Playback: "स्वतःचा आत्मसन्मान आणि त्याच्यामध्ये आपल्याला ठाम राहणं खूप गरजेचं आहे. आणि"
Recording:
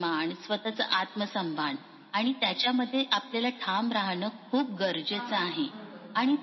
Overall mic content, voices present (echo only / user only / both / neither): both